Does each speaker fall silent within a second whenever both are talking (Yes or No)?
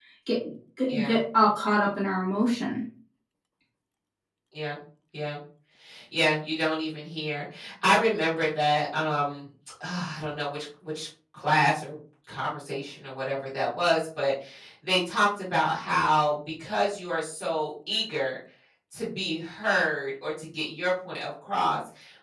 Yes